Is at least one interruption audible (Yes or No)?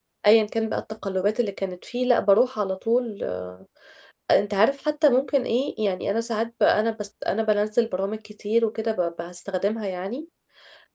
No